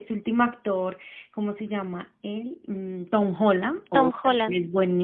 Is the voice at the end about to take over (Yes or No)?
No